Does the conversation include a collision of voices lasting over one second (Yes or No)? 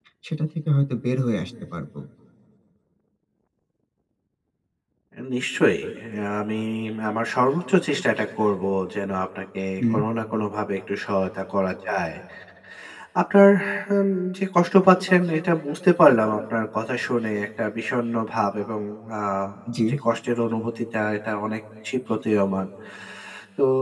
No